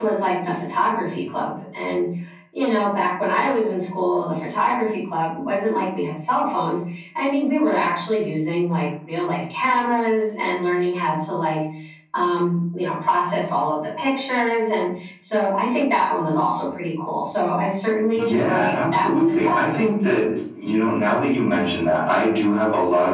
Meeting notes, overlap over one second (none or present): present